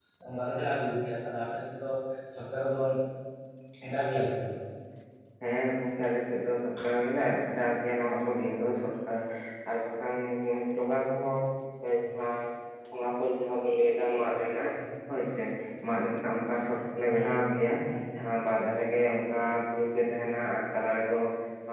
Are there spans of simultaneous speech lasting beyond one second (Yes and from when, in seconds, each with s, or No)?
No